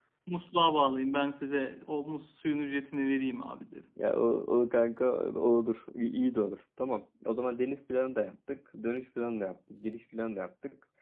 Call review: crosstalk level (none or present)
none